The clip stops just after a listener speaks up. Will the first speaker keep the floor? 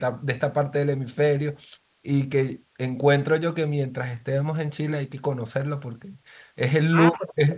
Yes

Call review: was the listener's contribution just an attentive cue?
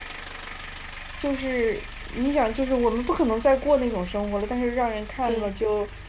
Yes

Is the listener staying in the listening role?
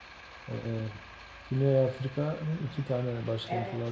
Yes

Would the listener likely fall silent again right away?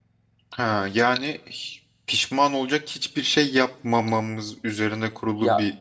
No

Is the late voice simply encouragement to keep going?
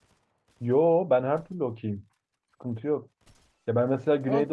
Yes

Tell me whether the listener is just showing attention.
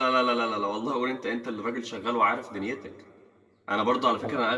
Yes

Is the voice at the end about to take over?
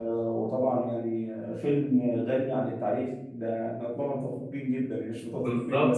Yes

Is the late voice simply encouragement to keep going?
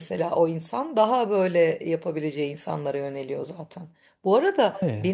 Yes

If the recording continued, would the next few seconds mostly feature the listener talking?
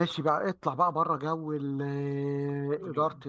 No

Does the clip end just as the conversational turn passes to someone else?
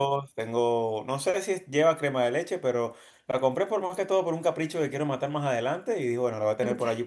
No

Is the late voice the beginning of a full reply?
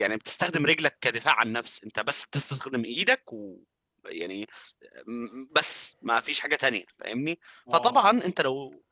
No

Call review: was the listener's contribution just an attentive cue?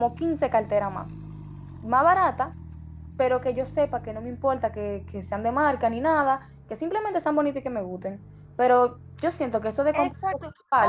No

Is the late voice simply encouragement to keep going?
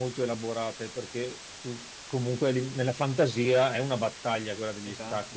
Yes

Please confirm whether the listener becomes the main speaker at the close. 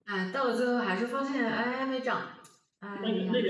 Yes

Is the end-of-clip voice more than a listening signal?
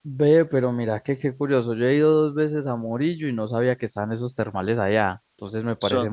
No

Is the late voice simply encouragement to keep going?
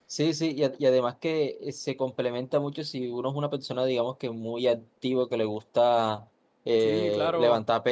Yes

